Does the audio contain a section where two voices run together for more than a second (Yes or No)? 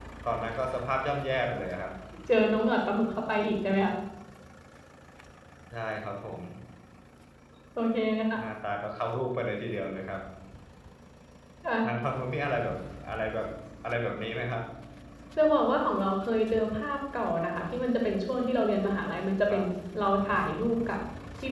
No